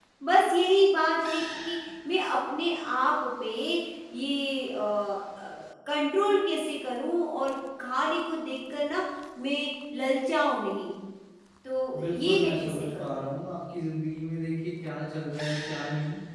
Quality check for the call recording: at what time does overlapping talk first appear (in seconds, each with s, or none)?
12.0 s